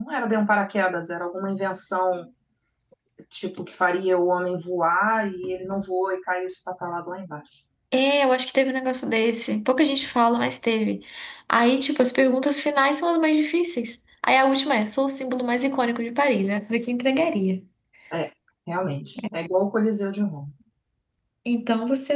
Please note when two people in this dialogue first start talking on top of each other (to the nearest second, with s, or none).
none